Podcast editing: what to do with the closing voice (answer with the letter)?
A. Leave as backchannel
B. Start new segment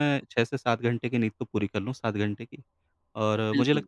A